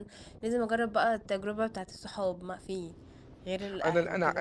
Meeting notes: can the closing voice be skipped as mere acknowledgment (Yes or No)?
No